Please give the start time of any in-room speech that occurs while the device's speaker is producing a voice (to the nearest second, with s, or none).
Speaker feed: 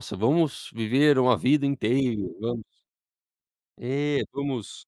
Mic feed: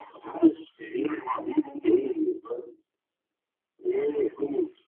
none